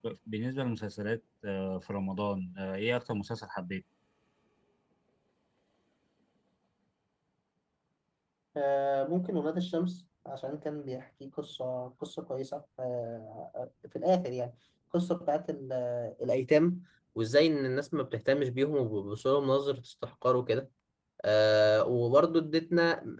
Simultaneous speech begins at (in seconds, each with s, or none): none